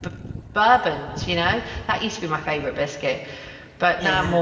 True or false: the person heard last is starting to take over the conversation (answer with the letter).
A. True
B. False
A